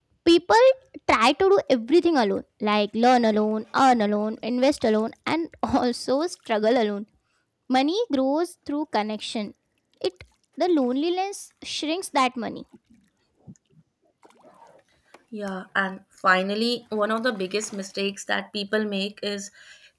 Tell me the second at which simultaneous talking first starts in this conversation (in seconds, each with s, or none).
none